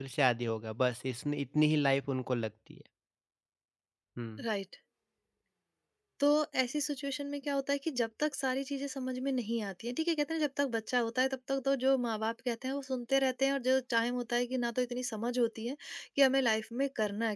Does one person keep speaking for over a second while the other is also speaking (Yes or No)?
No